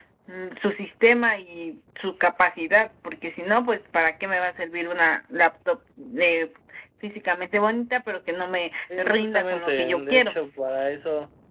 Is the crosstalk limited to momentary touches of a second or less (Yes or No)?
No